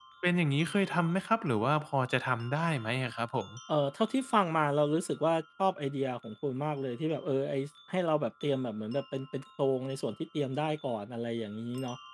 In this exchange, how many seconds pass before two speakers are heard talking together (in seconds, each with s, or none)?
none